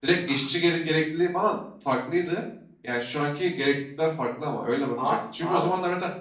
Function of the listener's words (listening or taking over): listening